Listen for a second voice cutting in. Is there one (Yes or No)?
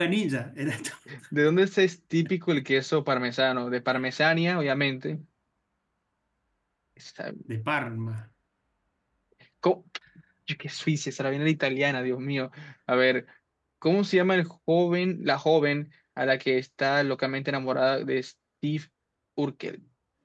No